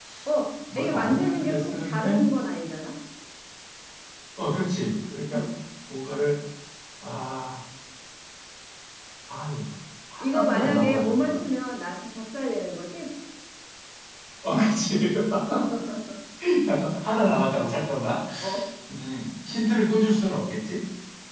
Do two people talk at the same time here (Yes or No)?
Yes